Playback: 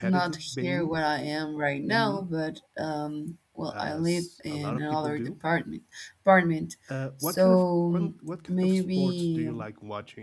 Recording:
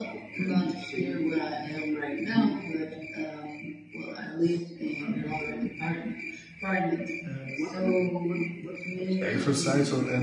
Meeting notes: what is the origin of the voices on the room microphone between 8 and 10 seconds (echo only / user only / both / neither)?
both